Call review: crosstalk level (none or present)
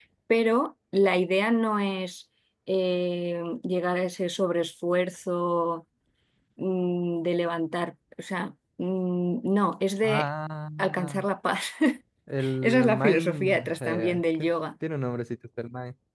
present